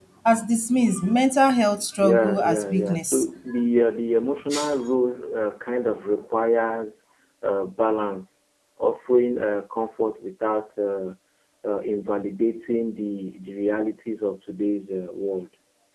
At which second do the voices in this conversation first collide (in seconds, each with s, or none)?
2.0 s